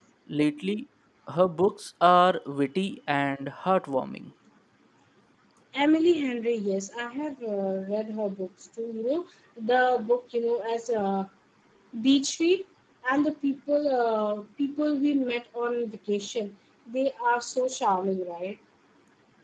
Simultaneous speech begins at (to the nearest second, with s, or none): none